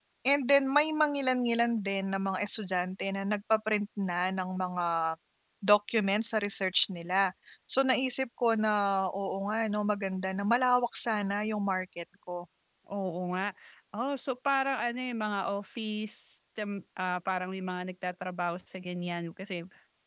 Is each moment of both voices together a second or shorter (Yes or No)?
Yes